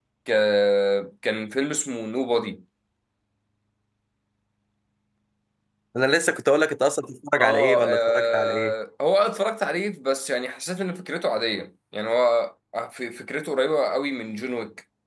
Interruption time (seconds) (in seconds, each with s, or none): 7.4 s